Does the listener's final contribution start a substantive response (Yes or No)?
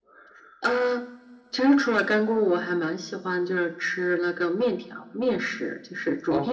Yes